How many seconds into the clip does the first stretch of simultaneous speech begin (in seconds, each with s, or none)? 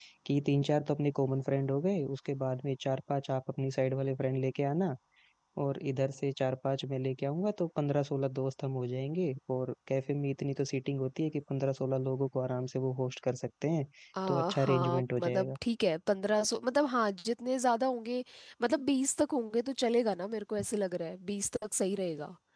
14.3 s